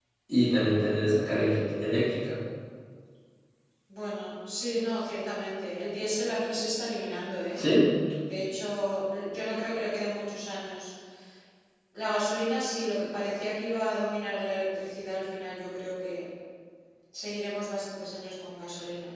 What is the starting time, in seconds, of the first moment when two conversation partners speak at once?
none

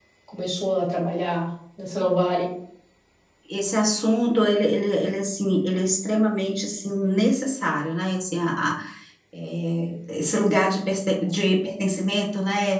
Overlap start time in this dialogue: none

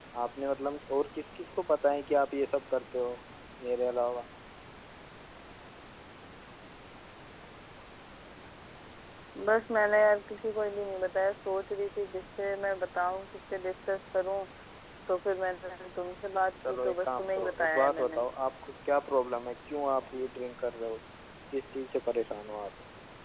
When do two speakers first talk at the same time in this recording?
17 s

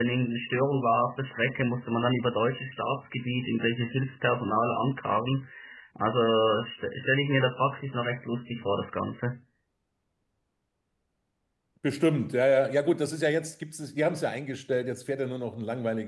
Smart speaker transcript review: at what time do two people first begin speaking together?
none

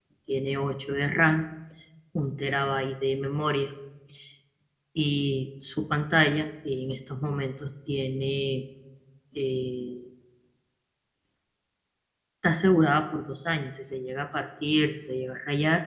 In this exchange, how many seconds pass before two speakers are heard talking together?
none

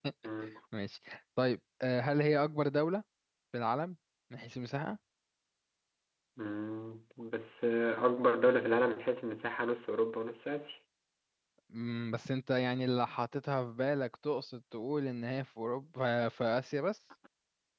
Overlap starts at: none

